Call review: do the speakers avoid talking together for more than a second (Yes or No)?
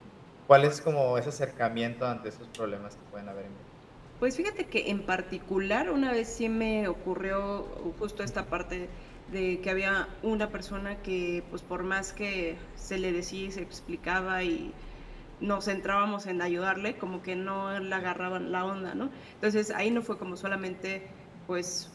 Yes